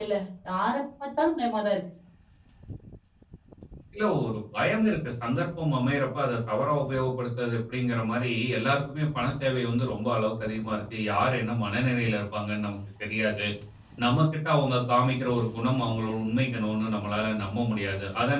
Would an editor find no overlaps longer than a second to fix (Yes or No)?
Yes